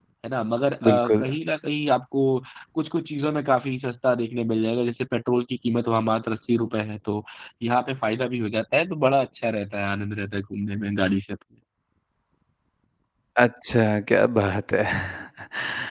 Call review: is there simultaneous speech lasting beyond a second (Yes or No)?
No